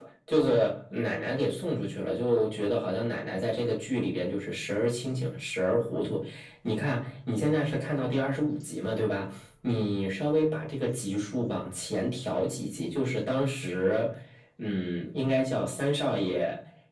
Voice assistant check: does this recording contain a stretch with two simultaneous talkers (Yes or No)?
No